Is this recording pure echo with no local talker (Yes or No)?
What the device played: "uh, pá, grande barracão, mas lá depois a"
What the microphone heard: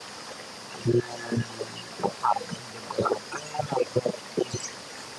Yes